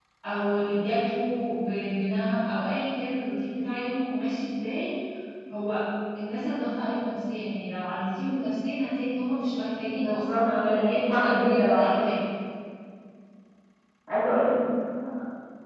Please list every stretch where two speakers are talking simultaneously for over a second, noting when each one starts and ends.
9.9-11.9

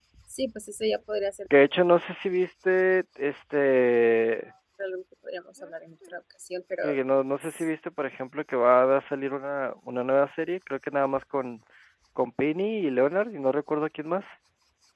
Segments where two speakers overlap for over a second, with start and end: none

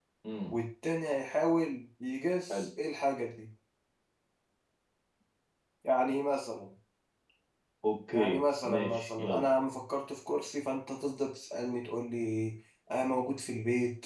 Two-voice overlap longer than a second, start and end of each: 8.1-9.5

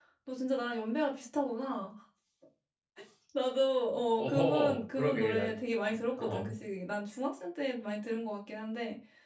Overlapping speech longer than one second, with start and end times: 4.2-5.5

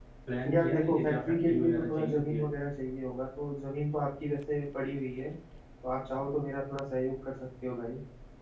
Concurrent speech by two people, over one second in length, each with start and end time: 0.5-2.4

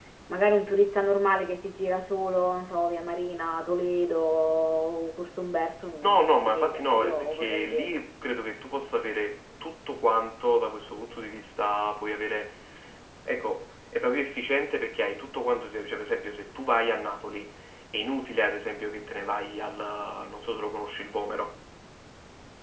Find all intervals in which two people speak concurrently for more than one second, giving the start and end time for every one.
6.0-8.0

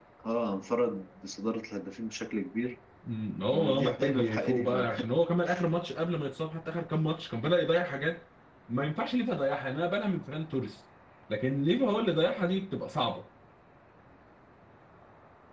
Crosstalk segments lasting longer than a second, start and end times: 3.5-5.0

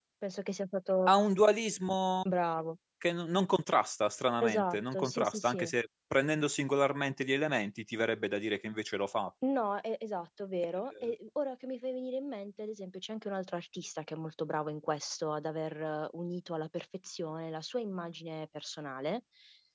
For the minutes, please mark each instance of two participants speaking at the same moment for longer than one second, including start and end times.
4.4-5.7

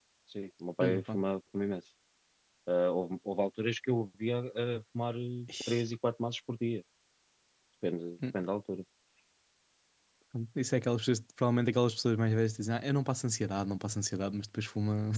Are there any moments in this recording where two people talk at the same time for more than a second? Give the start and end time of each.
none

